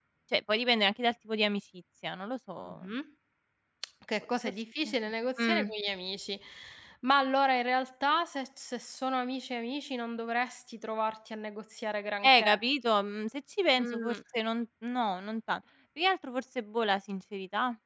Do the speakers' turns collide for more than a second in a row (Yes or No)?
No